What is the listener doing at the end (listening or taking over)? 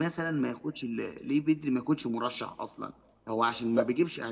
listening